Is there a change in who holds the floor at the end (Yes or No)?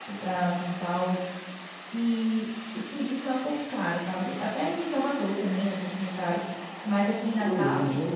Yes